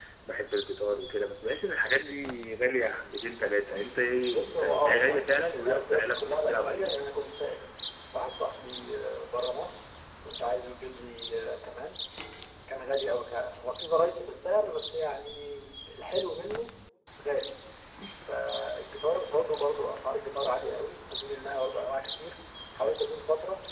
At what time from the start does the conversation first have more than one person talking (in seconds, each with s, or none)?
4.3 s